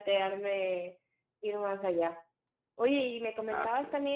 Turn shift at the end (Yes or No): No